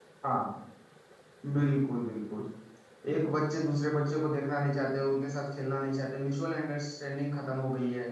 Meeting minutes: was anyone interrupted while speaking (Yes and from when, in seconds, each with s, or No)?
No